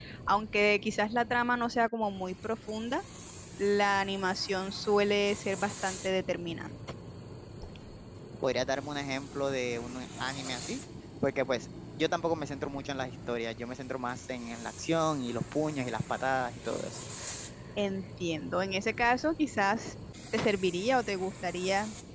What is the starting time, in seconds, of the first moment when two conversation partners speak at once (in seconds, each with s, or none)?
none